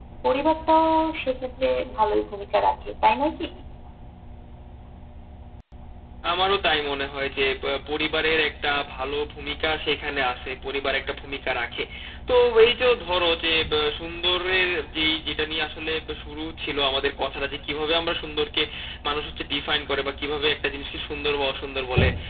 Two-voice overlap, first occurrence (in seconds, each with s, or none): none